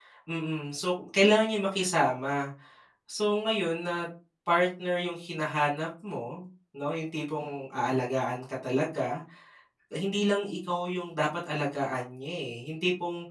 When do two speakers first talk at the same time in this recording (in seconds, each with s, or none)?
none